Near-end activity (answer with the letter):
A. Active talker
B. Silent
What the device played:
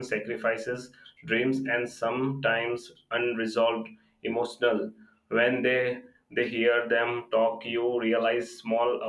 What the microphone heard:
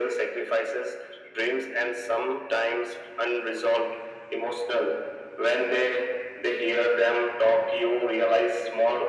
B